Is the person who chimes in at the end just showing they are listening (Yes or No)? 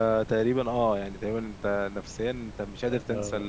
No